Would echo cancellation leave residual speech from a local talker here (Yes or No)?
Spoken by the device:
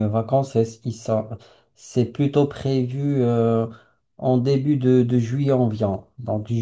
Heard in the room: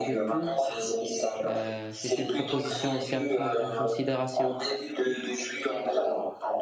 Yes